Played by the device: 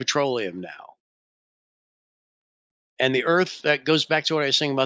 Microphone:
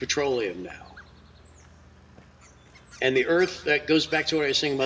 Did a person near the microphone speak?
No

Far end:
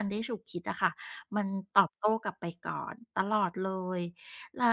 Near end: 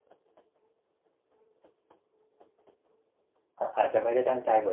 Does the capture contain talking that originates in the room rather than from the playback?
Yes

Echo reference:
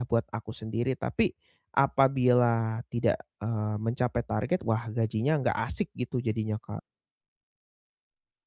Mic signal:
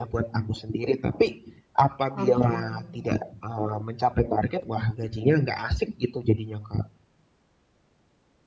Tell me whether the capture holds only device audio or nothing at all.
No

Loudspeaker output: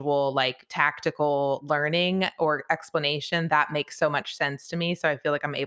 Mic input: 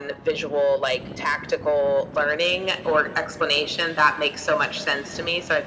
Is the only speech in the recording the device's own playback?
Yes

